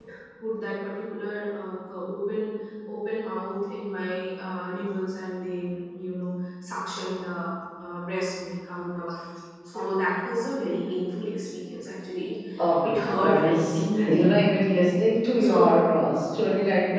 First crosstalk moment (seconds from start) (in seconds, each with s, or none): 12.8 s